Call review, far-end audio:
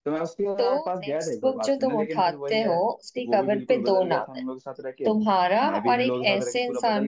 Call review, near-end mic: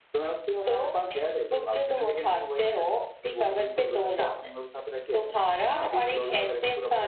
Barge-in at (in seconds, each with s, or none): none